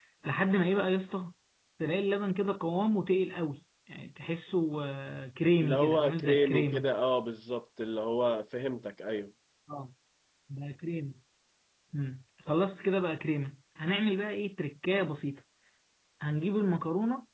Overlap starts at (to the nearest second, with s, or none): 6 s